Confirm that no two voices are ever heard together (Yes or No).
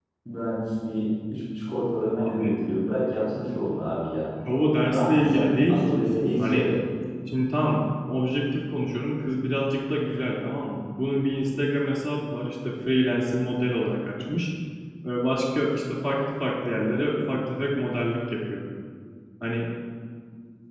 No